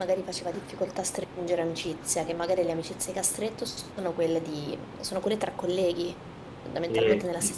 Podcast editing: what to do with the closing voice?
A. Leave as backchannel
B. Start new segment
A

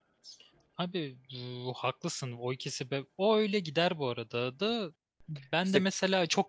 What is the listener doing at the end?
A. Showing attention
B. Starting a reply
A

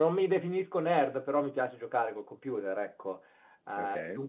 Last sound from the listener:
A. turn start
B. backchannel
B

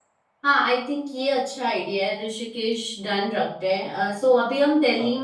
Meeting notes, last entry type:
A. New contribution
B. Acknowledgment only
B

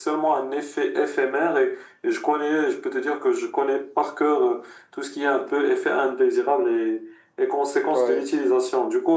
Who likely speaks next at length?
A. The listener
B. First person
B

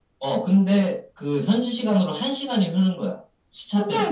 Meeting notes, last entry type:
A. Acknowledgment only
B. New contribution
B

